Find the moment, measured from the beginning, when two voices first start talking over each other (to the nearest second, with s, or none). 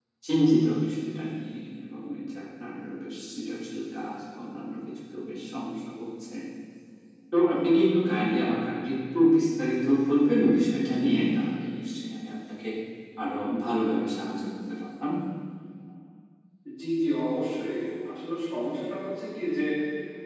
none